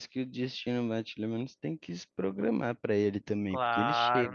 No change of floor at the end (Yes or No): No